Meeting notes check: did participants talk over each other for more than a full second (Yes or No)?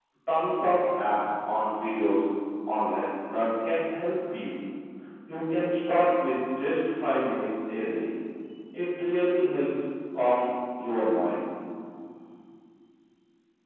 No